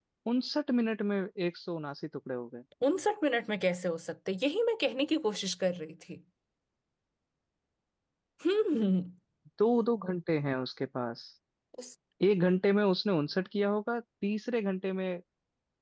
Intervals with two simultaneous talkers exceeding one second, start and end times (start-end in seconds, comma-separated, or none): none